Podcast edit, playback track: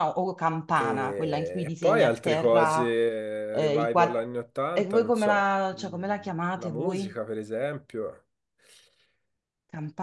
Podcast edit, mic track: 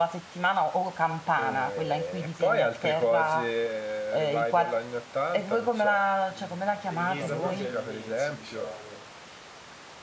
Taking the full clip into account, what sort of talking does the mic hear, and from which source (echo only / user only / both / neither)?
both